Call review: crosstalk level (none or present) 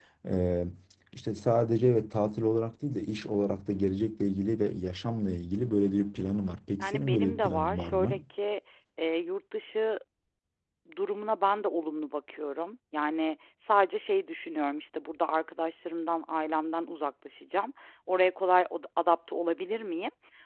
present